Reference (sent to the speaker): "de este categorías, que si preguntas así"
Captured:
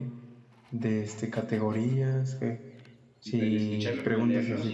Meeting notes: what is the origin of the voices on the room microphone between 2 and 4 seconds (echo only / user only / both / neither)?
both